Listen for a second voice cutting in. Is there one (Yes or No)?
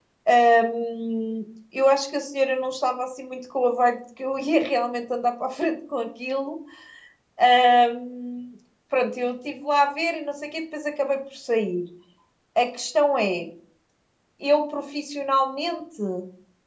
No